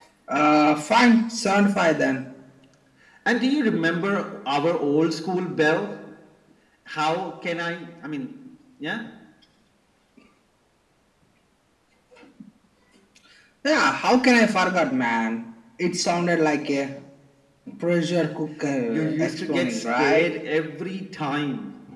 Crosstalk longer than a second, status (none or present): present